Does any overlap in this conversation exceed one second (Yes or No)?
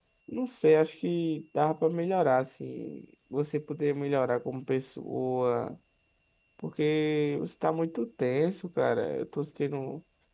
No